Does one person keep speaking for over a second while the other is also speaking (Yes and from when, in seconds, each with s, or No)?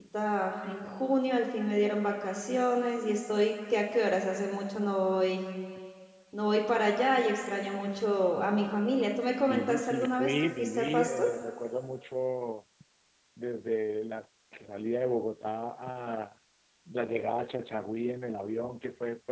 Yes, from 9.5 s